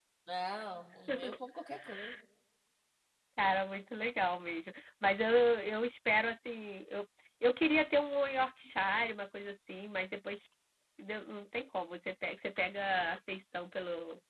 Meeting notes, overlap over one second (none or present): none